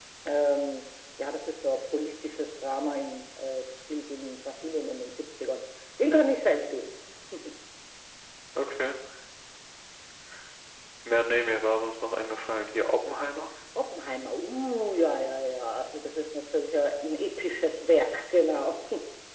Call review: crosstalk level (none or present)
none